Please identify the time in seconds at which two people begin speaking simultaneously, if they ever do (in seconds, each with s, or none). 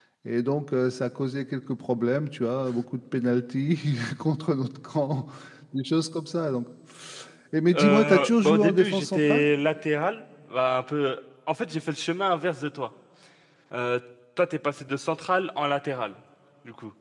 7.7 s